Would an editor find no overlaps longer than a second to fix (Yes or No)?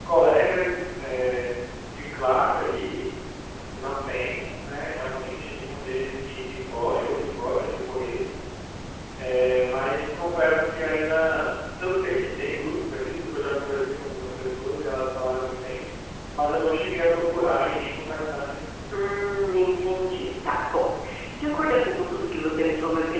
Yes